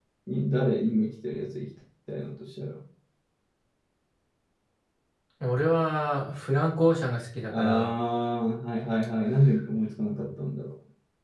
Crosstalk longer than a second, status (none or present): none